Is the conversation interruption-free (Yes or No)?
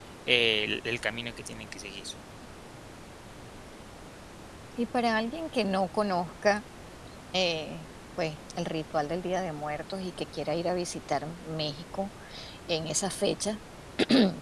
Yes